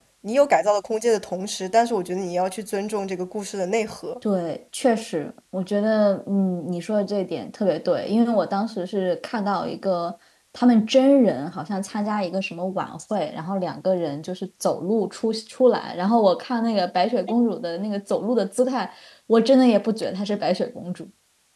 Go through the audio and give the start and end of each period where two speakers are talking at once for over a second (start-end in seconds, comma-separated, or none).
none